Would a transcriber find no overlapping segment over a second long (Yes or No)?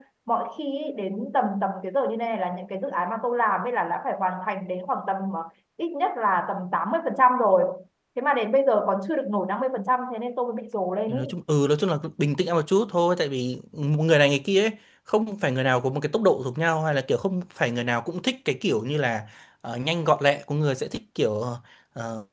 Yes